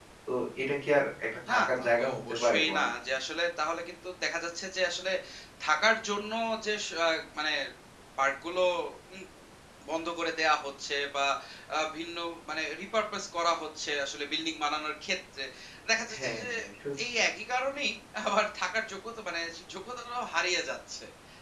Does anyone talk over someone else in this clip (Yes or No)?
Yes